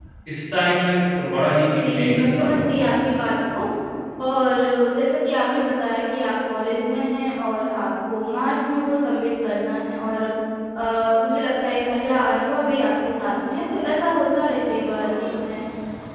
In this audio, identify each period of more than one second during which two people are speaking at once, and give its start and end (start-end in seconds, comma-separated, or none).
1.7-2.9